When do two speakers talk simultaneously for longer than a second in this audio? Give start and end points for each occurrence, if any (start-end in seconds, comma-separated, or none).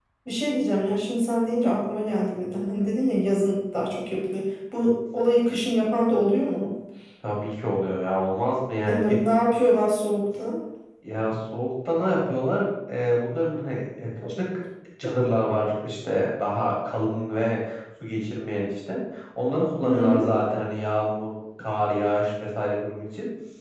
none